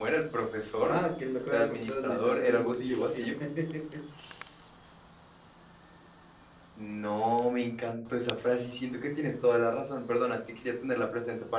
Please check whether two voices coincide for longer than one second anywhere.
Yes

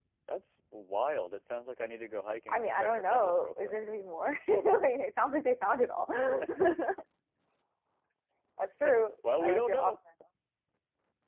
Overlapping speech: Yes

